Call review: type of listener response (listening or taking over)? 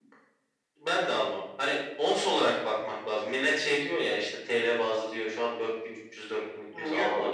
taking over